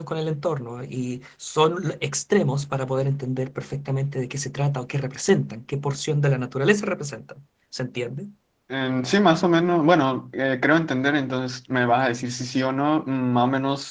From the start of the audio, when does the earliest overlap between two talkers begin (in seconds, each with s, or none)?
none